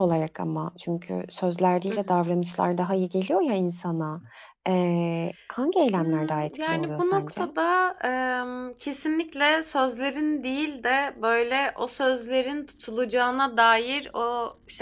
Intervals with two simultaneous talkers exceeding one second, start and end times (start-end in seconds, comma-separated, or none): 6.0-7.4